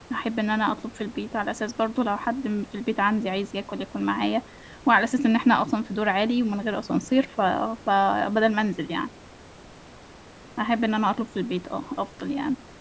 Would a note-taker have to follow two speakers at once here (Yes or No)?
No